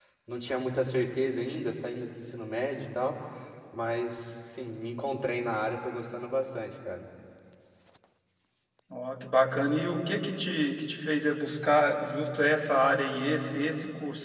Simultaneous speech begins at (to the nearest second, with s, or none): none